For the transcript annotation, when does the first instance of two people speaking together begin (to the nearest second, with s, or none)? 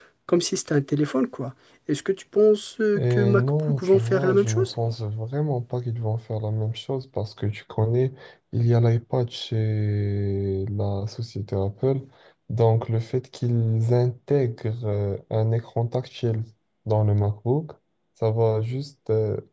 3 s